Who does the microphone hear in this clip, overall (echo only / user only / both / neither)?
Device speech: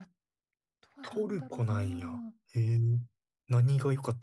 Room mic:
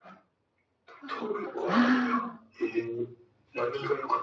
both